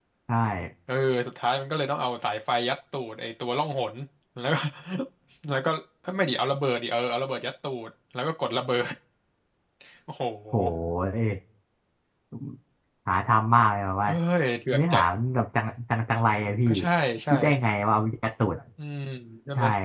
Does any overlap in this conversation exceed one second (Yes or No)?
No